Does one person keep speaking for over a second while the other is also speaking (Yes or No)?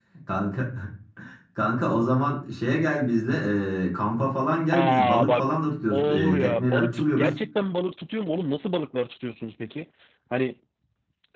Yes